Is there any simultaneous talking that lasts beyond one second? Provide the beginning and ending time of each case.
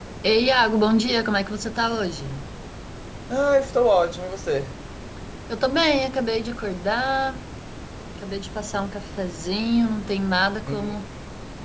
none

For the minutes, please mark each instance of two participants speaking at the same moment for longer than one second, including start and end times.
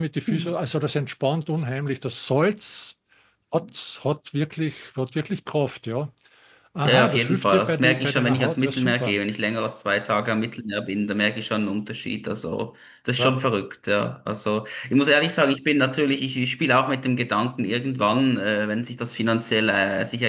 6.8-9.2

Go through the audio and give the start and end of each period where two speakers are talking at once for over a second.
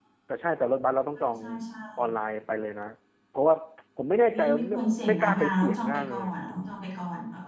4.3-6.5

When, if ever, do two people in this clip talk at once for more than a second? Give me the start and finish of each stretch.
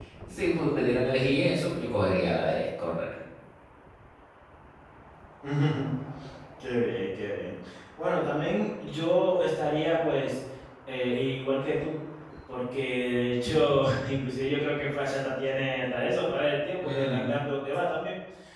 none

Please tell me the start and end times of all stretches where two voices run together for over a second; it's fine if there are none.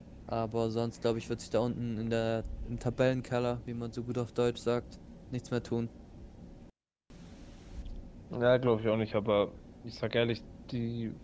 none

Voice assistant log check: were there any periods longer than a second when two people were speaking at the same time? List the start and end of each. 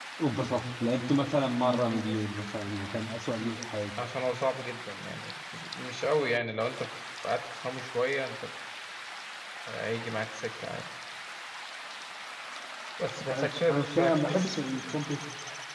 13.3-14.6

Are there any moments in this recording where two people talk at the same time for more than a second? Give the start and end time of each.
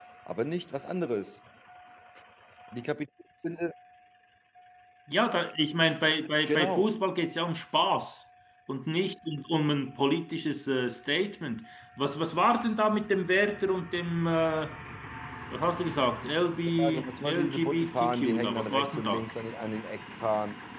16.8-19.3

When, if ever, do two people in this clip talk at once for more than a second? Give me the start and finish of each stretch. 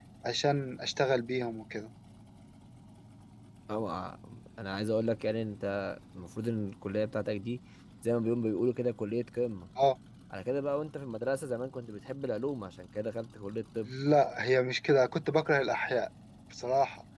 none

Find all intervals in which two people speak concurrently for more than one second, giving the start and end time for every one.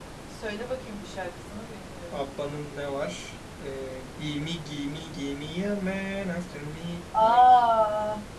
none

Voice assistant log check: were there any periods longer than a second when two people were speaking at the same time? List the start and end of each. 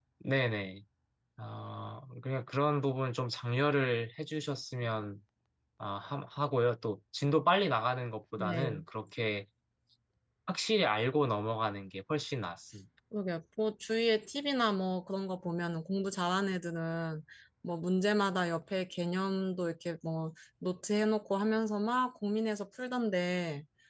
none

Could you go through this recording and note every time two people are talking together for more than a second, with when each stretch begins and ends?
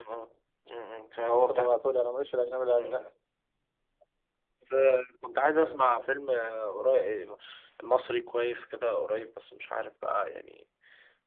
none

